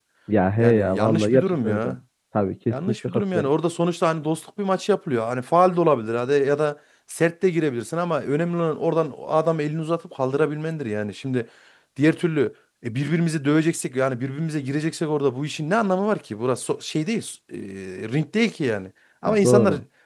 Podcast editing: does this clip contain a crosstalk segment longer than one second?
Yes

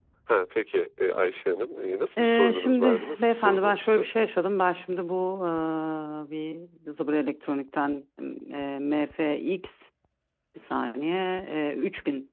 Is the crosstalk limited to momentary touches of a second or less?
No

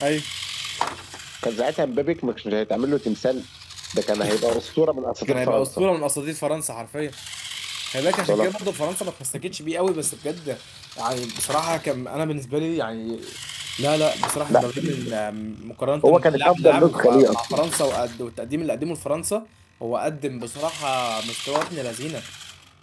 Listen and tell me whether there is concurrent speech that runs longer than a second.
Yes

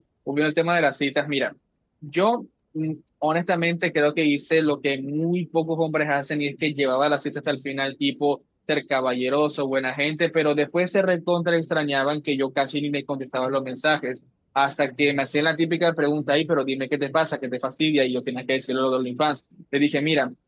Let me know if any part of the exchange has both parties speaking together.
No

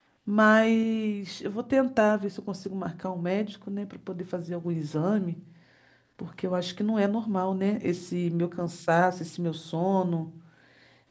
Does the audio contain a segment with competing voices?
No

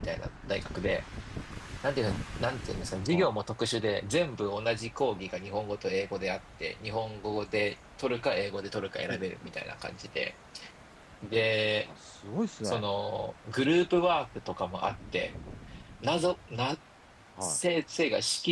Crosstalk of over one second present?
No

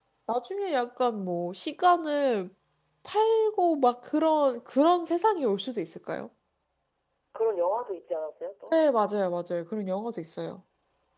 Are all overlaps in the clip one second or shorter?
Yes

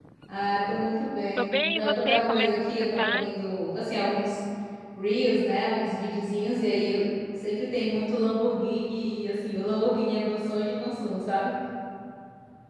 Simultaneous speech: Yes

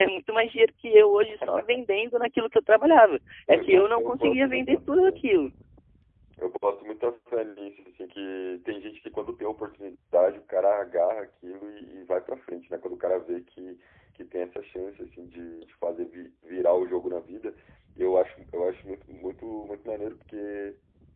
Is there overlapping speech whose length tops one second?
Yes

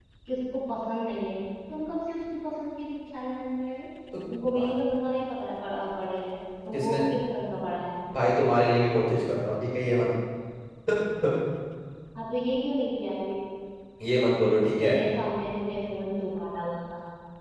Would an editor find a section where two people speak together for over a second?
No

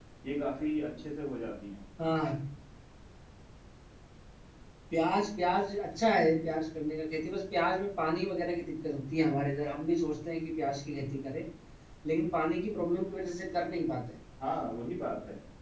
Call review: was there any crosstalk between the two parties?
No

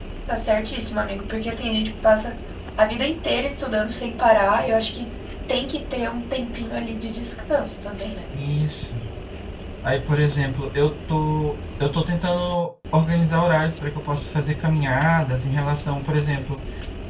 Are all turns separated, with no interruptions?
Yes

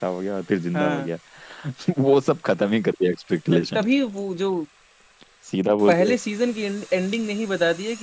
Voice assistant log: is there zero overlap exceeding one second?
Yes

